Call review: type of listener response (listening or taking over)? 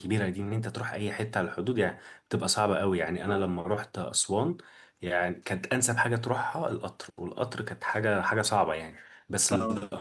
listening